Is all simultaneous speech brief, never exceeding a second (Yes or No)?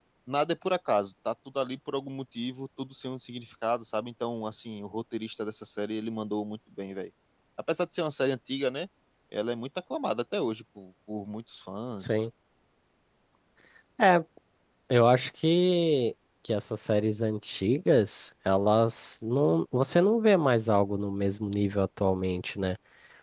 Yes